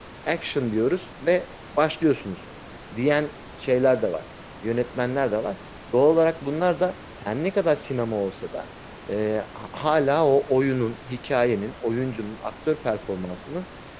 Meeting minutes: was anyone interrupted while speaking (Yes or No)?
No